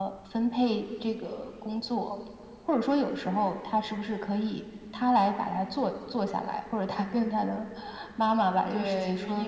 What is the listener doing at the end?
taking over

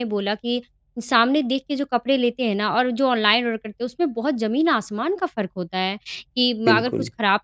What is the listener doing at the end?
listening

